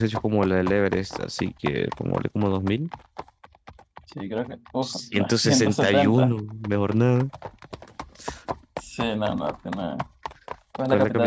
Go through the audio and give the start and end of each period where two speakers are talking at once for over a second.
4.8-6.3

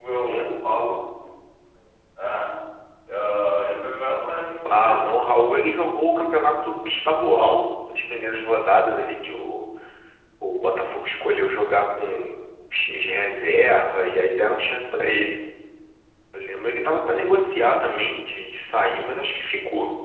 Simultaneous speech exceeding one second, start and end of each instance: none

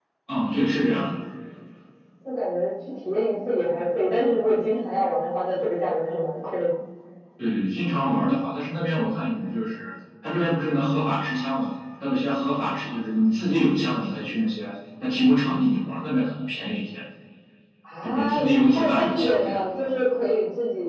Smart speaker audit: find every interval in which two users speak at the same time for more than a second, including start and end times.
18.0-19.6

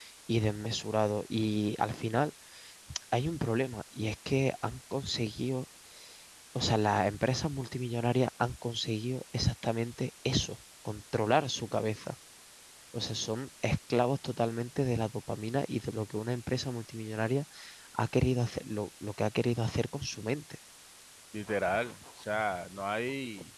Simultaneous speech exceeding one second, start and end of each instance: none

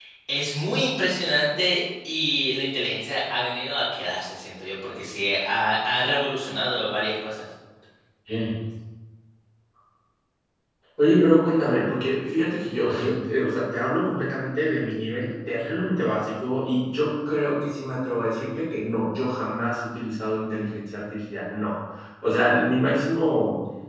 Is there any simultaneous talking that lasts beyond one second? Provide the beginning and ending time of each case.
none

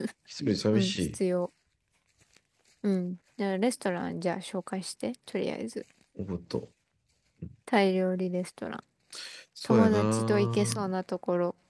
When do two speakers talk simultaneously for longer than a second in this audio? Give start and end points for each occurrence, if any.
9.6-10.9

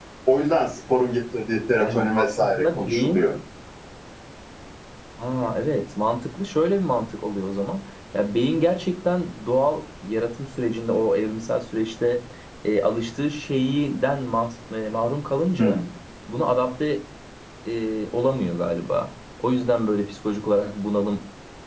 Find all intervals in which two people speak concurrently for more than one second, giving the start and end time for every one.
1.8-3.3

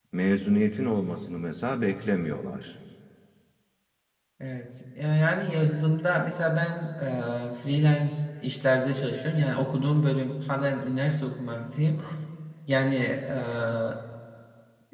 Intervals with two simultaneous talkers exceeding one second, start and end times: none

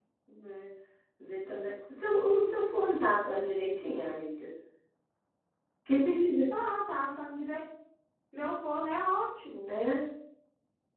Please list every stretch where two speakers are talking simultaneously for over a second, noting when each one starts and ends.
none

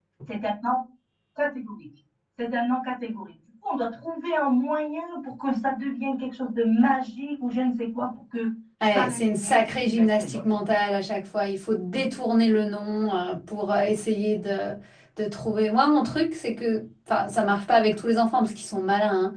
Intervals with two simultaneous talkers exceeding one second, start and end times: 8.9-10.4

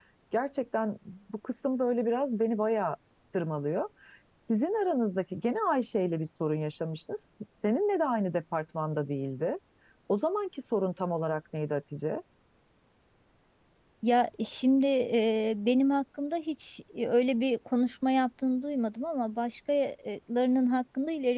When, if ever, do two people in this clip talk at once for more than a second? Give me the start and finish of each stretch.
none

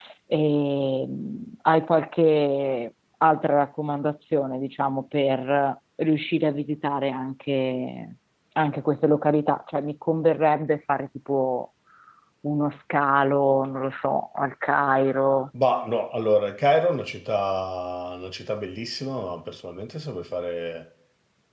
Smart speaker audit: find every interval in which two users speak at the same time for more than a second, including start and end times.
none

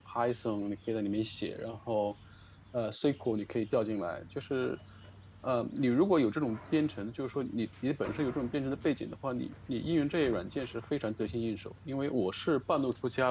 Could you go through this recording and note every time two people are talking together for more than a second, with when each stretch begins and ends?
none

